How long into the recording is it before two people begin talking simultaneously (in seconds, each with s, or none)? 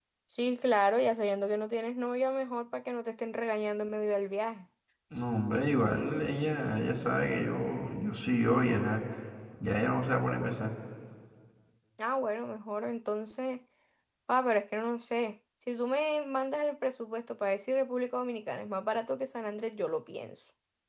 none